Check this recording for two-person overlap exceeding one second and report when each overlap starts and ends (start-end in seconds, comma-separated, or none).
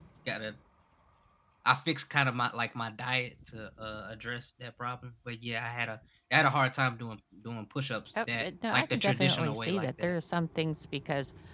8.3-10.1